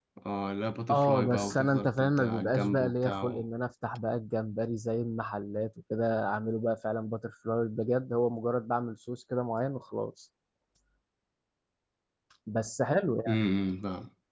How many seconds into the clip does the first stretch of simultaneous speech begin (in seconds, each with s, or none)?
0.9 s